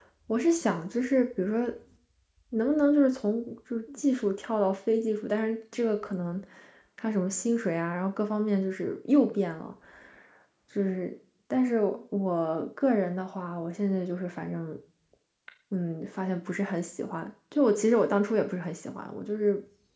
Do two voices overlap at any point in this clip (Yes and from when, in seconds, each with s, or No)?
No